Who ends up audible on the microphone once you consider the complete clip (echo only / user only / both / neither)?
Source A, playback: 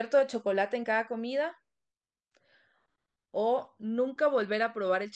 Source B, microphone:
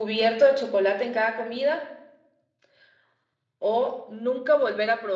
echo only